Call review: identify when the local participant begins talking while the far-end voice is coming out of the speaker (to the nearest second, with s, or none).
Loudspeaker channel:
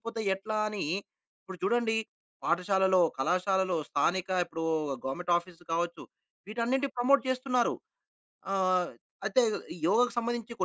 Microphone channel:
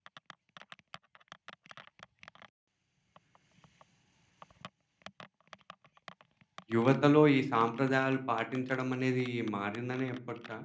7 s